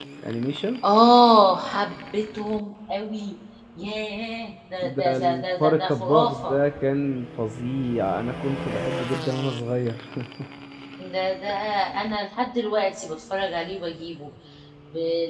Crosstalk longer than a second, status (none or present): present